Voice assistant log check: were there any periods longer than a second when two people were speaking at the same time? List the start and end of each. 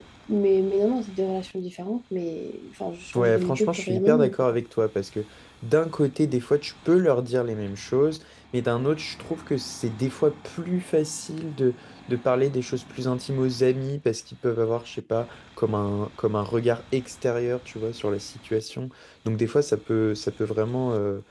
3.1-4.3

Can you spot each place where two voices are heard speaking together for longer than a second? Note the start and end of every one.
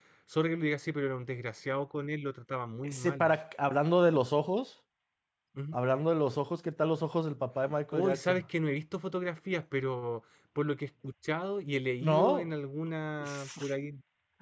none

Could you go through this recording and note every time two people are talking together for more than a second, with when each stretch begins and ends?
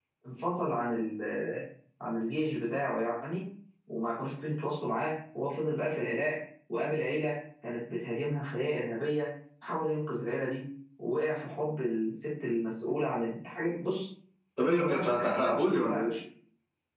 14.6-16.1

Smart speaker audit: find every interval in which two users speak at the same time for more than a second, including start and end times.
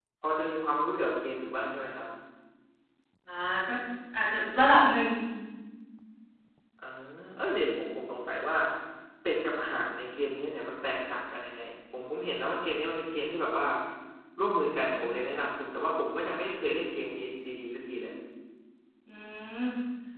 none

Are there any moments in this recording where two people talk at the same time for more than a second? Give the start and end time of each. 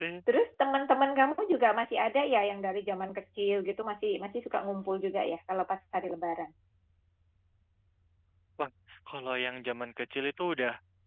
none

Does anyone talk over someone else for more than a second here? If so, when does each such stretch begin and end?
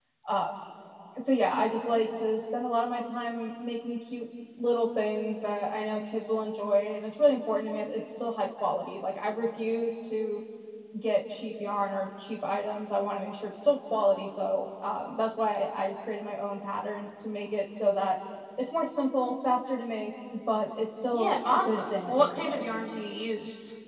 21.1-22.6

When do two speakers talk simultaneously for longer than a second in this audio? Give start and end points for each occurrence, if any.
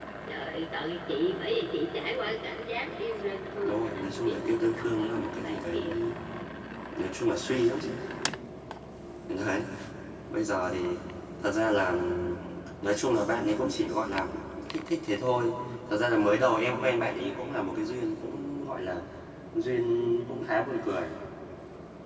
3.6-5.9

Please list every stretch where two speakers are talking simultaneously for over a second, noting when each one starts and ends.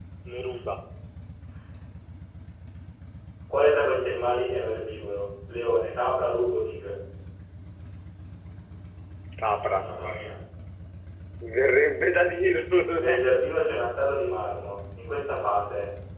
none

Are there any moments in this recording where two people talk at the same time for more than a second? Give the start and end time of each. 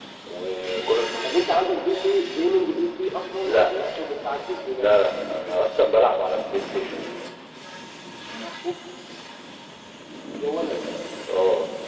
none

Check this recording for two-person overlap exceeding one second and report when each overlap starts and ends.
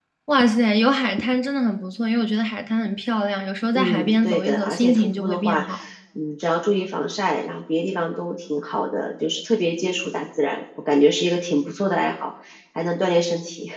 3.7-5.6

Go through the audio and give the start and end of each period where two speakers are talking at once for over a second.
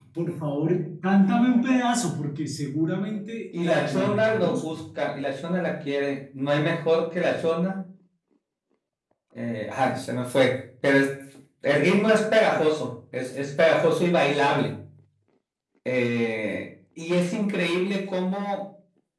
3.6-4.8

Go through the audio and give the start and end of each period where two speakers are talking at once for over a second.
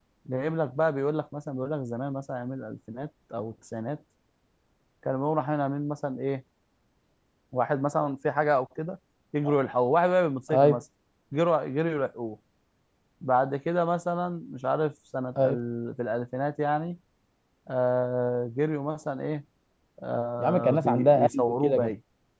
20.4-21.9

